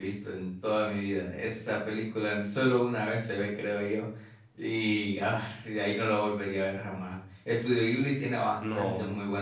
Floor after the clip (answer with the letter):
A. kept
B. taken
A